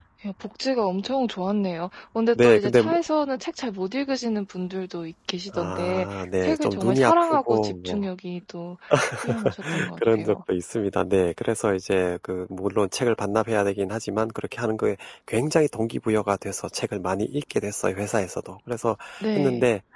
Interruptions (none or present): present